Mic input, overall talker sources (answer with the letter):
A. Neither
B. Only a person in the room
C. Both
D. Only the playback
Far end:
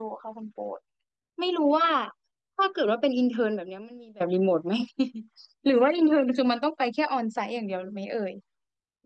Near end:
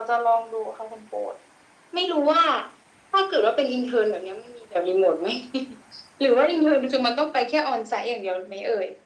D